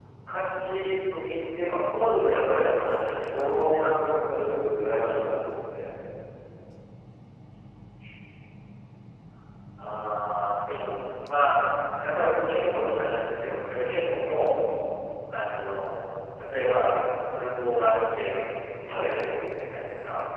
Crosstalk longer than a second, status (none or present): present